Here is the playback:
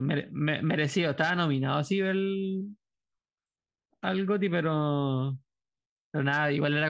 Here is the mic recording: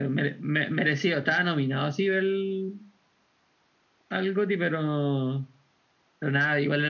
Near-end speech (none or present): none